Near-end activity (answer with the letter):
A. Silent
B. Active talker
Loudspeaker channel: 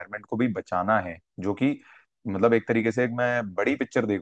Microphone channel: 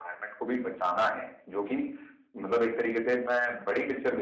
A